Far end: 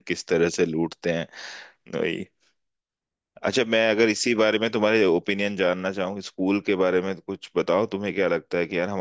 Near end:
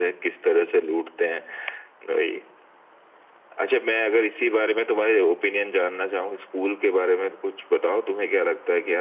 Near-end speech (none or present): none